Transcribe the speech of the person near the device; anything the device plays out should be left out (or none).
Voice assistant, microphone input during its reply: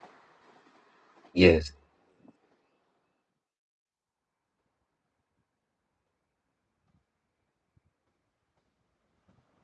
Yes.